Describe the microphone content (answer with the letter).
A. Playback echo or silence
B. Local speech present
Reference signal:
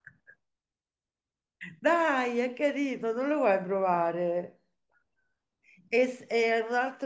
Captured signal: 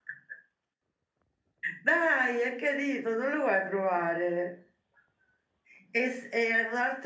A